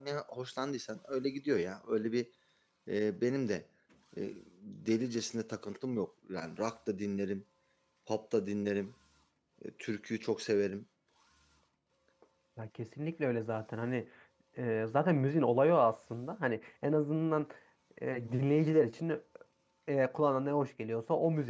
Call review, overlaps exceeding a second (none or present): none